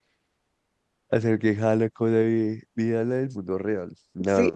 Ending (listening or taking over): listening